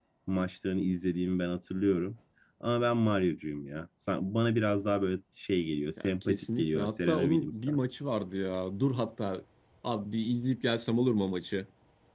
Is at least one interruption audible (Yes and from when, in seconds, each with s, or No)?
Yes, from 6.0 s